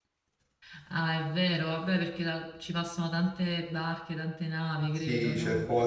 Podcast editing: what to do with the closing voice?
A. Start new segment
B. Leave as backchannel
A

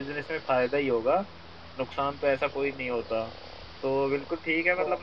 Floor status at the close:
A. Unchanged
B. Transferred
A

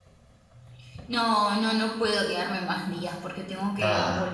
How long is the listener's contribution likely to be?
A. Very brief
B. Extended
A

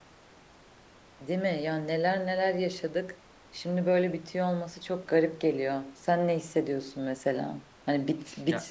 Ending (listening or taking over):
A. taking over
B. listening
B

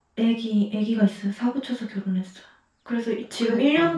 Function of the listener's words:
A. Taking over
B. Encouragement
B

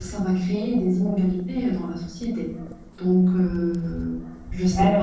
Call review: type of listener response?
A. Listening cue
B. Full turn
B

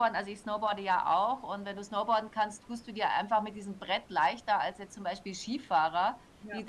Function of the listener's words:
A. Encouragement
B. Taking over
A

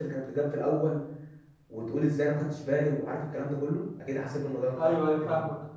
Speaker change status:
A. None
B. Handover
B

